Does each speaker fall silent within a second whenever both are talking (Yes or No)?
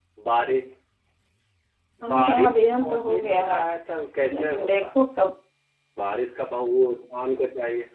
No